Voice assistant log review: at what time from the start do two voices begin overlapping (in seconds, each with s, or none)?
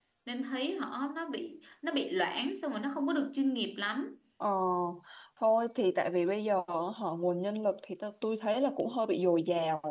none